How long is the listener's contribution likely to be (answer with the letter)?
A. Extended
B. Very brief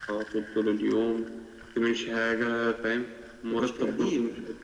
B